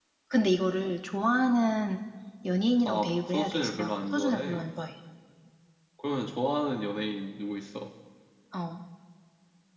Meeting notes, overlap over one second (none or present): present